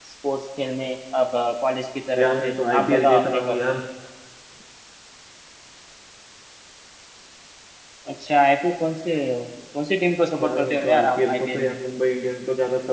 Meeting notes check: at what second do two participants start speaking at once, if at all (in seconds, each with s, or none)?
2.2 s